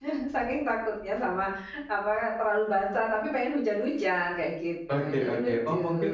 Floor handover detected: Yes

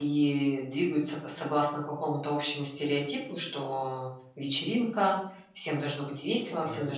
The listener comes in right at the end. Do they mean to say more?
No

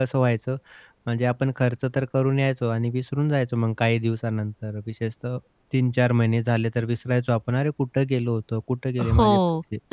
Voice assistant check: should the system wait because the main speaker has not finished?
No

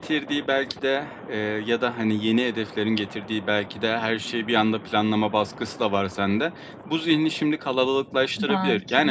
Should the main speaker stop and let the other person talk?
No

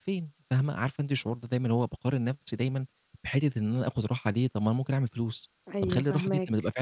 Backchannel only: Yes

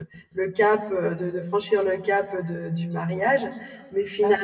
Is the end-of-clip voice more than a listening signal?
No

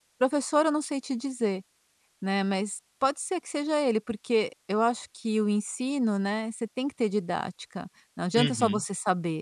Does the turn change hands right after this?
No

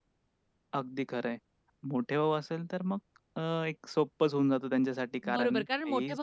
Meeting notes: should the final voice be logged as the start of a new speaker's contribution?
Yes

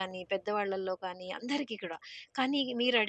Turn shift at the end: No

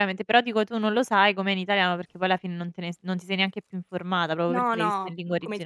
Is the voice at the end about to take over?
Yes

